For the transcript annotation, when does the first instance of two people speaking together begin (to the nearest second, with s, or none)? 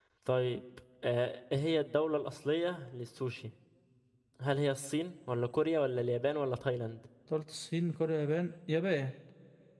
none